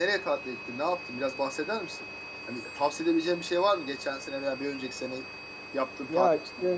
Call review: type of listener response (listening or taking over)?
taking over